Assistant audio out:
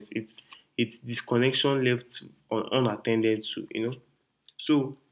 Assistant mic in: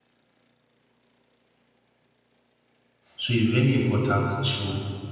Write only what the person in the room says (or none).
So it's very important to